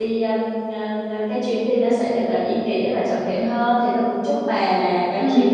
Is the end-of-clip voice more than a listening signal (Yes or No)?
No